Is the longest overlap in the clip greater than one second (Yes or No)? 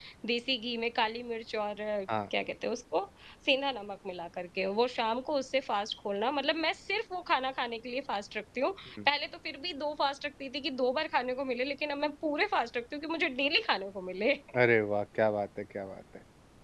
No